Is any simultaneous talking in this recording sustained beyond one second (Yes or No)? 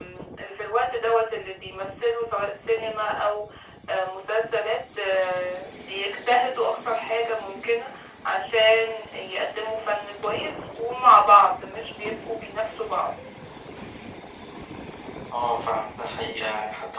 No